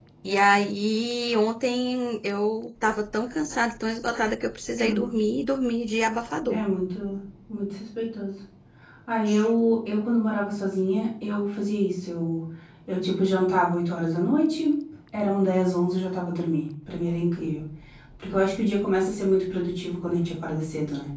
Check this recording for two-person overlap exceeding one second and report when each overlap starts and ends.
none

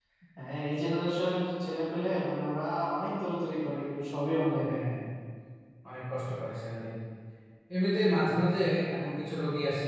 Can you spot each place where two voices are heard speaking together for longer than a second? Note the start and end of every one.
none

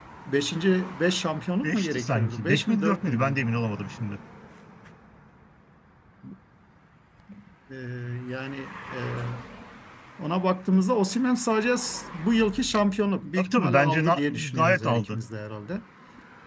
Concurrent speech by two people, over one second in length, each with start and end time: 1.6-3.4, 13.4-15.2

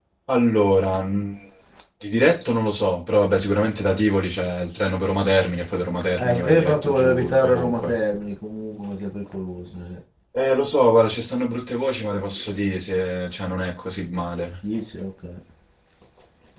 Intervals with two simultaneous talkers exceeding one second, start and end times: 6.2-8.0

